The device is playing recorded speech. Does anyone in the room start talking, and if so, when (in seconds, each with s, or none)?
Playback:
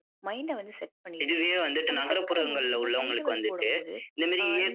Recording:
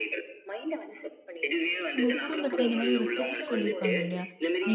2.0 s